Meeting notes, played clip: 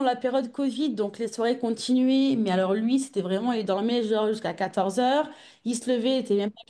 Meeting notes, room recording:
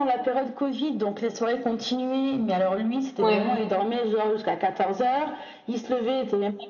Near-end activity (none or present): present